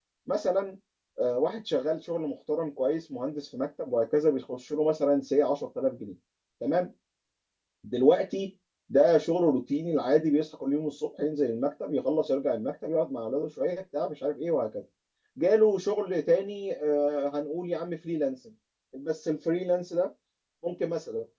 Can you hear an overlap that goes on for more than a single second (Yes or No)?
No